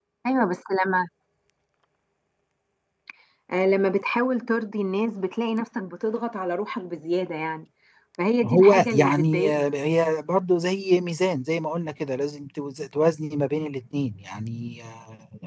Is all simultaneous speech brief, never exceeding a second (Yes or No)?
No